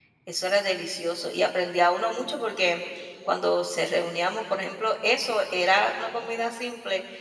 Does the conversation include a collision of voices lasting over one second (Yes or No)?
No